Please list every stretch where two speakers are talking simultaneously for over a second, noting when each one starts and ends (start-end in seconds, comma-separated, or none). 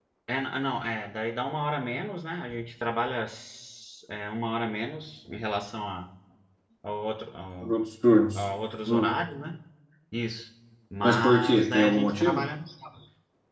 11.0-12.5